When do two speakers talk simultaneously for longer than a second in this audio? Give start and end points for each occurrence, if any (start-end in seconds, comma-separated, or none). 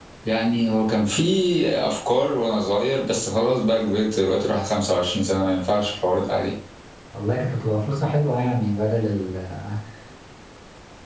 none